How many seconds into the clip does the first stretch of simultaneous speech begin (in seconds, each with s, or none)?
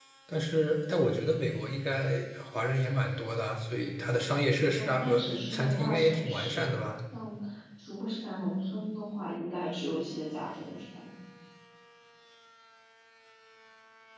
4.8 s